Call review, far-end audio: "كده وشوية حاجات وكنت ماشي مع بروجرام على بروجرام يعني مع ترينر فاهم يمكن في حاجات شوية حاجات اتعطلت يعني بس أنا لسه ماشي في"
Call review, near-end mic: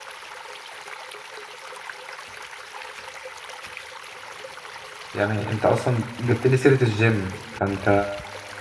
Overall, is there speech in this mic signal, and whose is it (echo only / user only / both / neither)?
user only